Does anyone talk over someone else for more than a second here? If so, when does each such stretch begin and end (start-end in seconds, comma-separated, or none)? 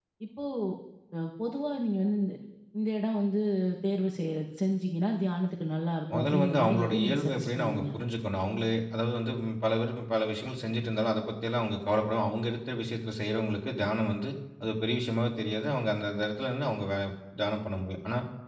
6.1-7.8